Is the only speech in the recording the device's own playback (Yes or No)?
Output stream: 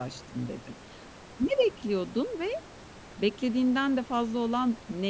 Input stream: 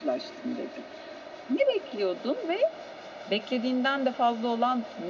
Yes